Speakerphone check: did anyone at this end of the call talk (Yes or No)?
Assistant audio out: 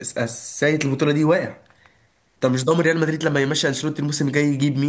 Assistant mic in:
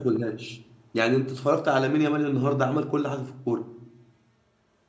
Yes